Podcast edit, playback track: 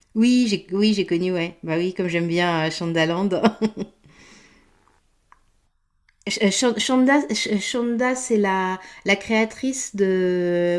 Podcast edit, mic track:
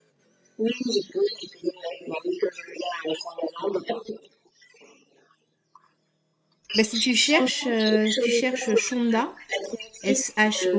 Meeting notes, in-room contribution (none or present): present